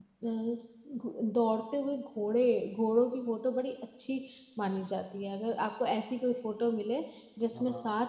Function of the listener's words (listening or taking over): listening